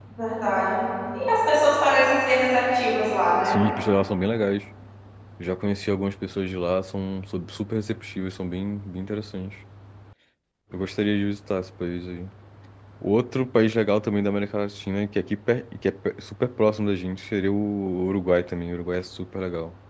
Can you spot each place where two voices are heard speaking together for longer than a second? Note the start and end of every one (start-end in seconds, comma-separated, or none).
none